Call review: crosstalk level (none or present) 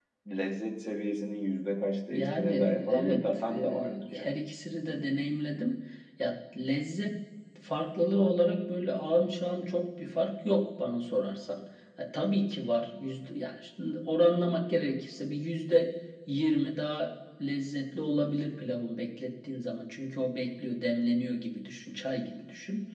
present